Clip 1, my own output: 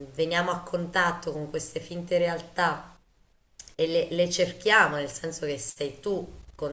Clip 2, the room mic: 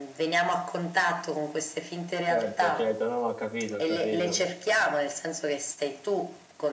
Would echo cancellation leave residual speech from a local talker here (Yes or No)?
Yes